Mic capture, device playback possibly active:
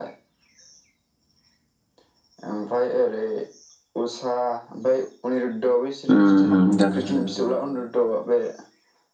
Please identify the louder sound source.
user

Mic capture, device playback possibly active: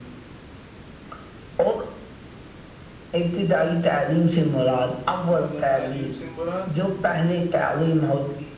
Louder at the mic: echo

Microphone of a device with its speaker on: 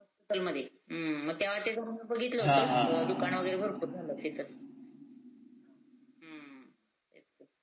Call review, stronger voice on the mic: user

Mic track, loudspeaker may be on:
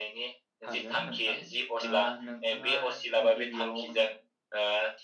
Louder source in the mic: echo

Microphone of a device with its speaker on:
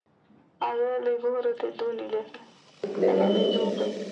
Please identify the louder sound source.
user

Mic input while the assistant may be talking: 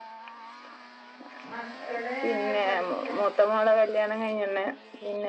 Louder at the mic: echo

